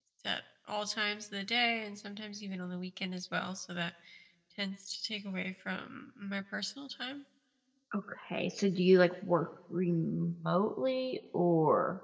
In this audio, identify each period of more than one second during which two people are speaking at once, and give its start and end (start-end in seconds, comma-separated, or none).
none